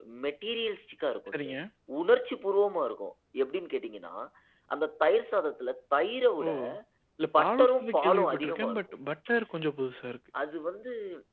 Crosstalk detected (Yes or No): Yes